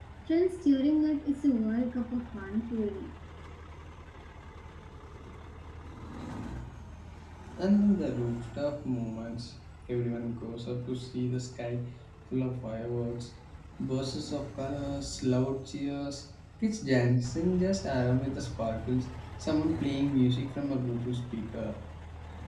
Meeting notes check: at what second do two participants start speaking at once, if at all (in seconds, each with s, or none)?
none